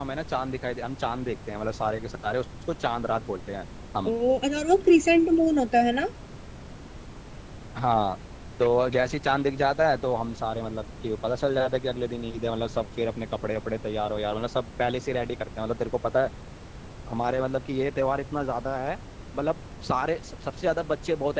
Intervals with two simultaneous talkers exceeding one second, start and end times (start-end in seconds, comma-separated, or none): none